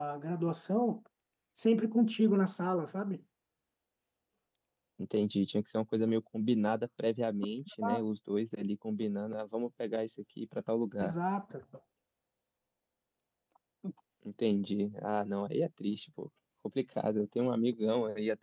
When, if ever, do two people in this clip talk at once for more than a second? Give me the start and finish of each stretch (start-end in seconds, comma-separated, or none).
none